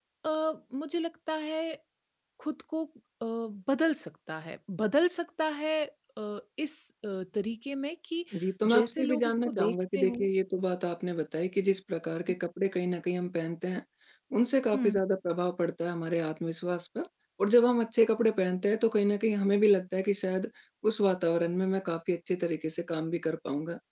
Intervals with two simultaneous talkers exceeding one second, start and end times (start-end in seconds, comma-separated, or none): 8.8-10.2